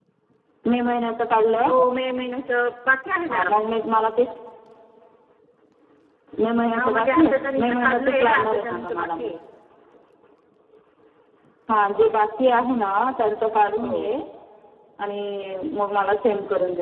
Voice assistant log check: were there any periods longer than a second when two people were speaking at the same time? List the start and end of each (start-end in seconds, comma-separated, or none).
6.8-9.3